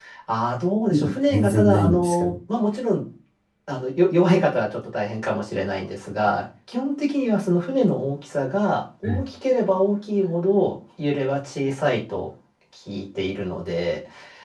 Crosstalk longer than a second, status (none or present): present